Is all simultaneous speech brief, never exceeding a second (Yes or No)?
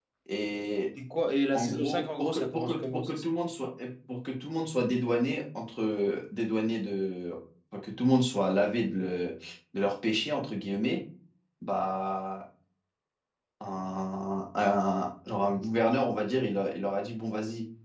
No